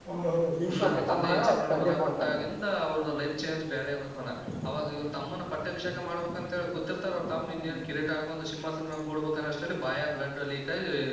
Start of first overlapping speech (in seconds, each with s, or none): 0.7 s